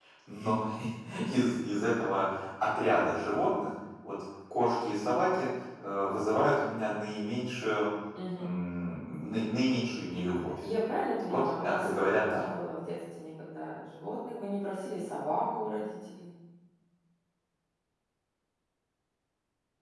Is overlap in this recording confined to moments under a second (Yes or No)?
No